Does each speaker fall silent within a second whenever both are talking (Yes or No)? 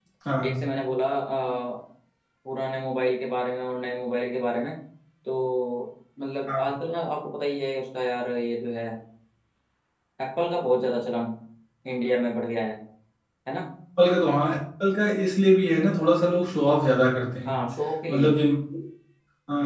Yes